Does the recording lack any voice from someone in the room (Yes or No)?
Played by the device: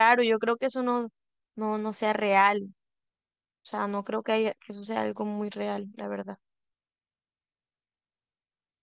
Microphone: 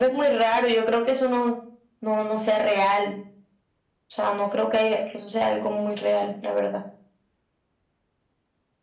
Yes